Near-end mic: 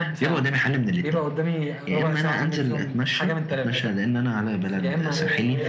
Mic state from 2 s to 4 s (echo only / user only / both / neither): echo only